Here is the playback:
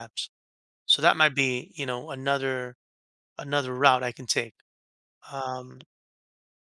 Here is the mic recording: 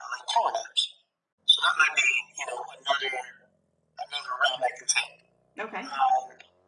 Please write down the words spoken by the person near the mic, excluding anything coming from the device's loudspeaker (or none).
Okay.